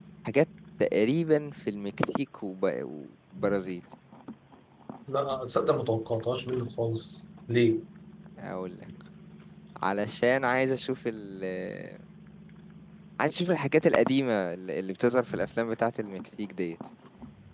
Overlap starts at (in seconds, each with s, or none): none